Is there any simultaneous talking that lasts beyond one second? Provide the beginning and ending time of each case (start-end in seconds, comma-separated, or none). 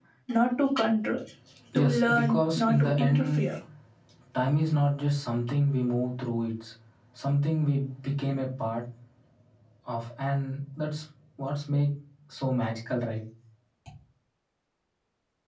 1.7-3.4